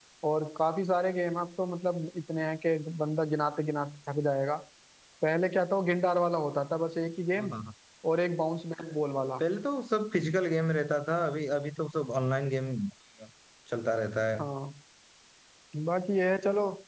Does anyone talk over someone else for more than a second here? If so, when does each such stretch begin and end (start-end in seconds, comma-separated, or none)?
none